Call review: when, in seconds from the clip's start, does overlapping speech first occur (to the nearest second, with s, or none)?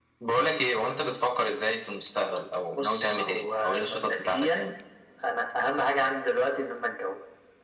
3 s